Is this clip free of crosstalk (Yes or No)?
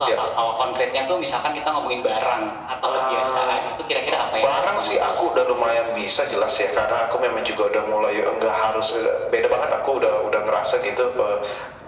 No